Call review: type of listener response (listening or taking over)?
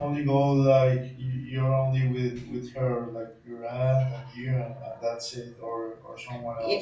taking over